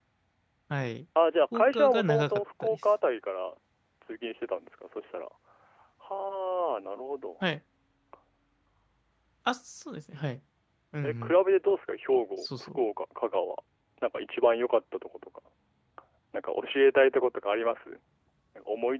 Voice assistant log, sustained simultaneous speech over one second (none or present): present